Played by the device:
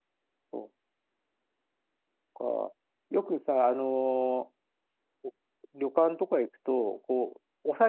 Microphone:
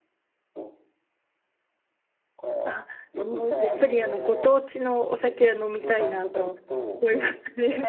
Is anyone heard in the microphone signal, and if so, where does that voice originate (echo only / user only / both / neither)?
both